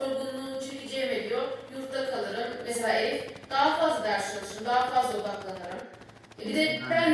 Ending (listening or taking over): listening